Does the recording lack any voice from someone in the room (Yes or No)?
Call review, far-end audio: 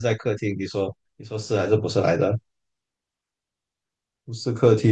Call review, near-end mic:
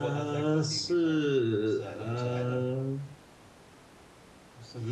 No